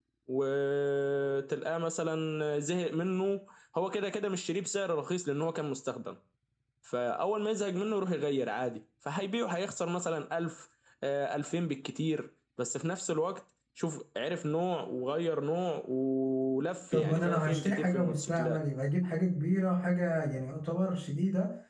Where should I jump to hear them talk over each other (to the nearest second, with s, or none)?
17 s